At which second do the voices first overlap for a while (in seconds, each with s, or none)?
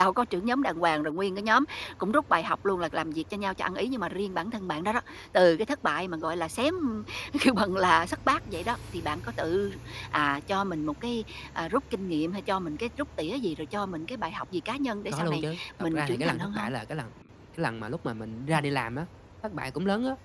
15.1 s